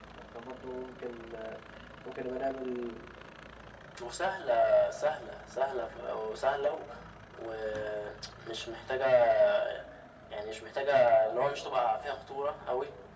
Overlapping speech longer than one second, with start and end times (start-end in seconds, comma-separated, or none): none